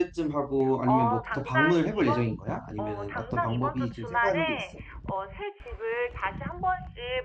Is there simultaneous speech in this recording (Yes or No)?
Yes